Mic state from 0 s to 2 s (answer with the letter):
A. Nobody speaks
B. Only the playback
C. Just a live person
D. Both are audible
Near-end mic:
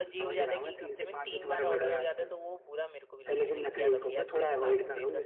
D